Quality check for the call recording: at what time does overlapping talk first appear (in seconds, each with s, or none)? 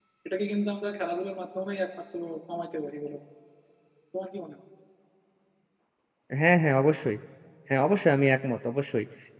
none